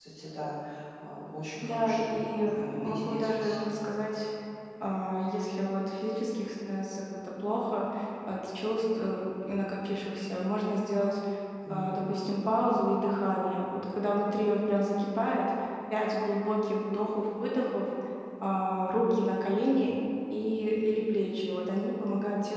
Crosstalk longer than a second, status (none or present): present